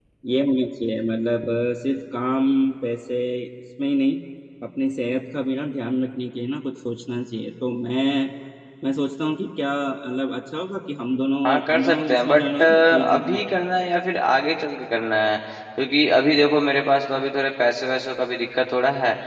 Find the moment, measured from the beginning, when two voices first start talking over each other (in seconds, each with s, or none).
11.4 s